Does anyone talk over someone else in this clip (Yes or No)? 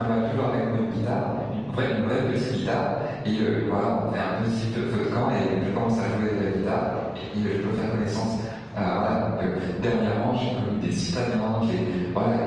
No